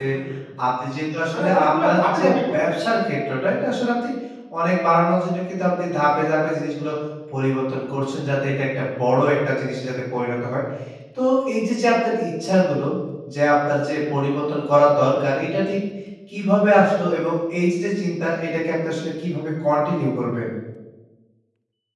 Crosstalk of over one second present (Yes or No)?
Yes